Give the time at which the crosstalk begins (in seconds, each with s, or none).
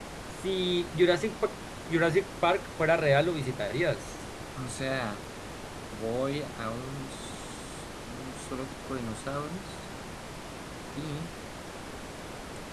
none